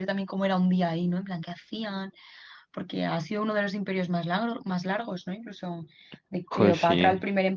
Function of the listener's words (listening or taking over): listening